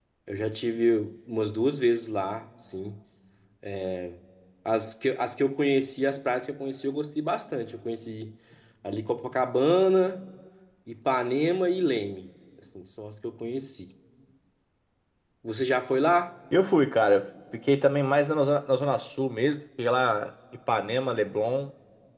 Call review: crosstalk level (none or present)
none